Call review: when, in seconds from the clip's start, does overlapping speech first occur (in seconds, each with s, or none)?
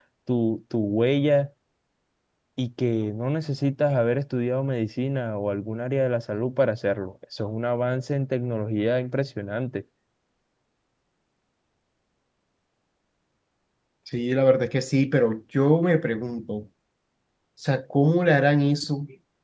none